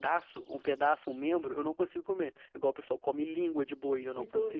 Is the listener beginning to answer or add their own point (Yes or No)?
Yes